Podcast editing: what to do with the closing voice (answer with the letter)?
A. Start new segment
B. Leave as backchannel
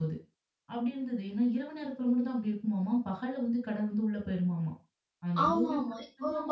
A